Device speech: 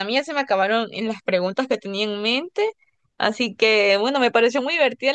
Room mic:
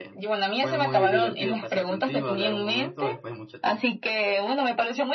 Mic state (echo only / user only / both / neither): both